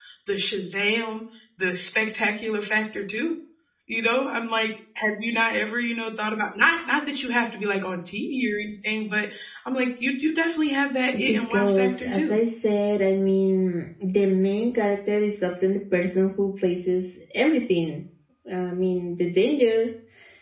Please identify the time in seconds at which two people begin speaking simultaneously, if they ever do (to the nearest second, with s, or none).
11 s